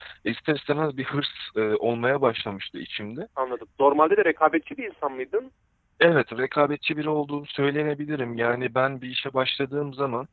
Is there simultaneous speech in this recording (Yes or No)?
No